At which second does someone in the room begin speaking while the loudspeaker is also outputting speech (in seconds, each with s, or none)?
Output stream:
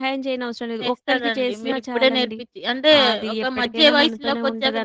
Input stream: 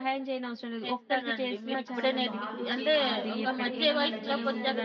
1.9 s